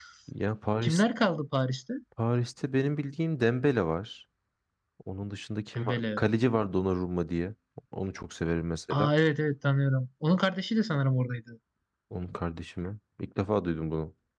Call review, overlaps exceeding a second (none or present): none